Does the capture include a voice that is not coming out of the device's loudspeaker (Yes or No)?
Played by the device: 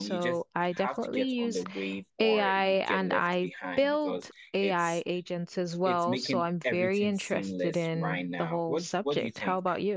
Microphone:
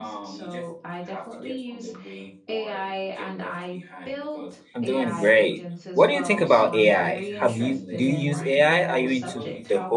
Yes